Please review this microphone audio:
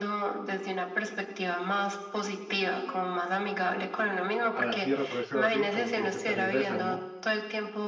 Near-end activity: present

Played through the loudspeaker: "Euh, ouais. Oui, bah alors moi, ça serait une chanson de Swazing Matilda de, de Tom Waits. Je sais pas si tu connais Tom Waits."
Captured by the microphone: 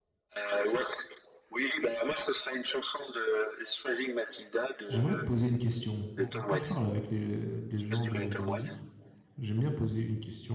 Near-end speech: present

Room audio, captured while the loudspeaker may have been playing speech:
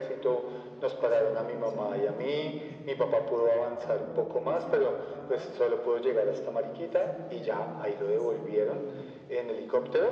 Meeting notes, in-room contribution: present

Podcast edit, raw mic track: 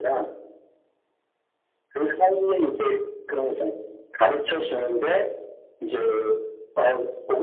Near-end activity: none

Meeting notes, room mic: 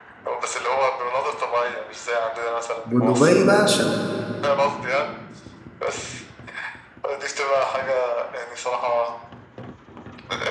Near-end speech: present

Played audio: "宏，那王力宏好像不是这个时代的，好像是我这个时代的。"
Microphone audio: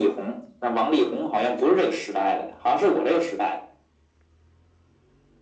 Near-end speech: none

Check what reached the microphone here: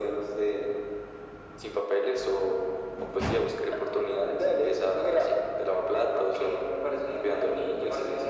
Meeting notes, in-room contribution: none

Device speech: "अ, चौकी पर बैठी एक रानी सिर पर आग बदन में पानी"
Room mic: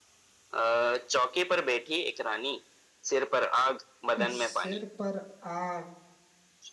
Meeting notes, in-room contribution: present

